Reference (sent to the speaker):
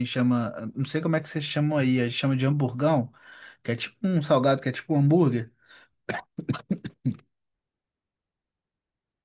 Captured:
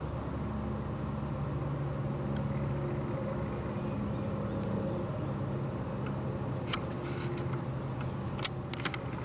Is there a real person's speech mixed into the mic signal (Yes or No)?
No